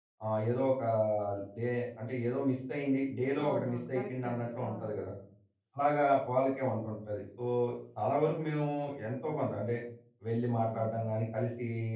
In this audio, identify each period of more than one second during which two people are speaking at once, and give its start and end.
3.4-4.9

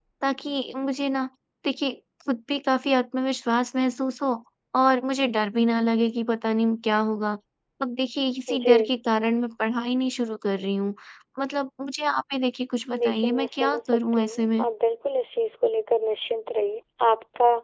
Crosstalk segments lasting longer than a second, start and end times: 13.0-14.6

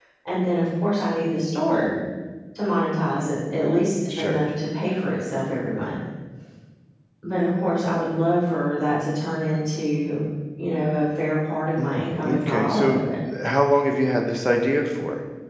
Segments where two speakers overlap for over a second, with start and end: 11.8-13.0

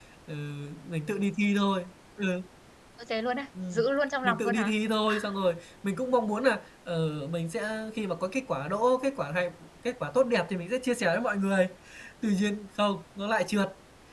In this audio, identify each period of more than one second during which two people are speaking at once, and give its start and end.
none

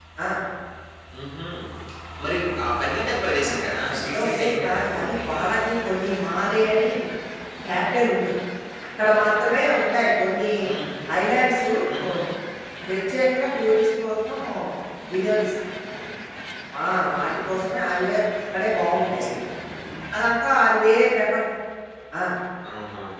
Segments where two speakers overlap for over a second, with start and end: 3.4-5.4

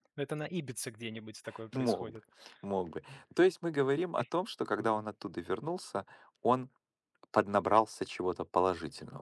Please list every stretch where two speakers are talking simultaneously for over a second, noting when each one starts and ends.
none

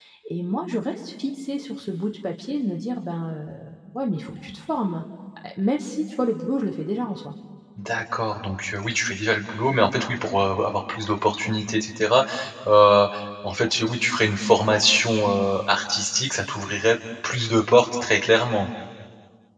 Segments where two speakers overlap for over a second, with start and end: none

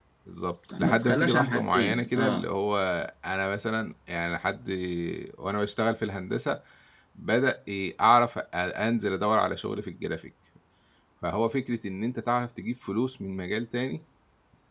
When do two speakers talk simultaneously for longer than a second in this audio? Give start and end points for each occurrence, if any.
0.7-2.4

